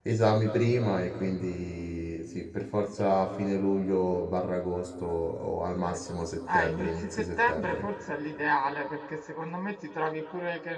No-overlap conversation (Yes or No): No